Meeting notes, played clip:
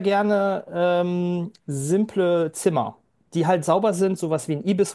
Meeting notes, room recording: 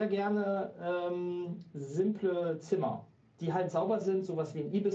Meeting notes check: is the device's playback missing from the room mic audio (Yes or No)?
No